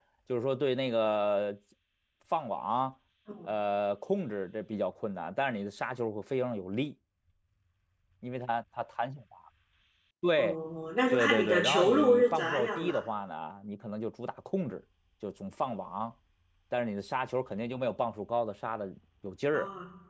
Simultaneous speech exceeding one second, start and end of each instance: 11.1-12.9

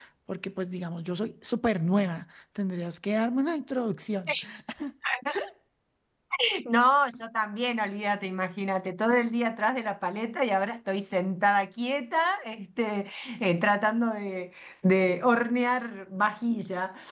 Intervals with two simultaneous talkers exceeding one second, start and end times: none

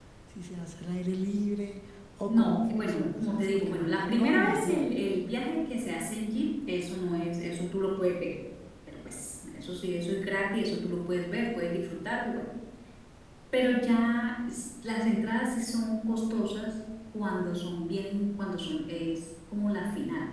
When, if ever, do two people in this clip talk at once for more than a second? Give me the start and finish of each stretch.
2.3-4.9

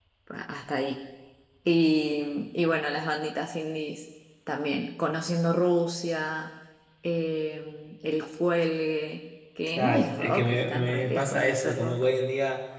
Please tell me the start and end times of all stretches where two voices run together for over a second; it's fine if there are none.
9.8-12.0

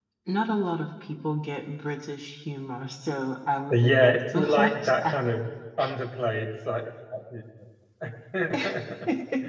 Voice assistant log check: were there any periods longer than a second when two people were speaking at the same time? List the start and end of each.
3.7-5.2

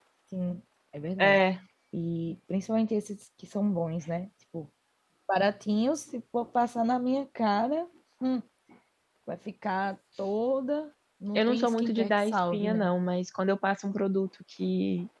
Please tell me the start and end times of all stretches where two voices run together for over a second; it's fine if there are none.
11.4-12.9

